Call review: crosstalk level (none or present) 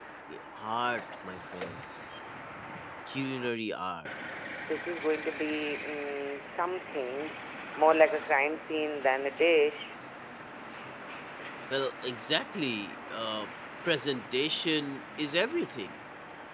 none